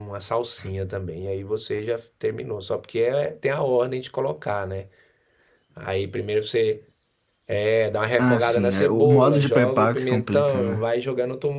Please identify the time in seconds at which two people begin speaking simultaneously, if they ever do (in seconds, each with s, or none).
8.2 s